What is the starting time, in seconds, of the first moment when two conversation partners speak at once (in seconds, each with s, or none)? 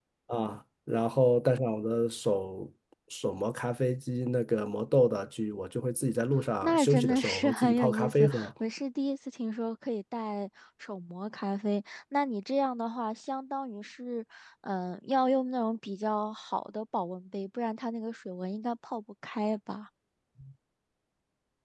6.6 s